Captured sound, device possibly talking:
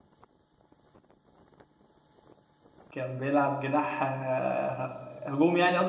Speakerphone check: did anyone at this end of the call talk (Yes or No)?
Yes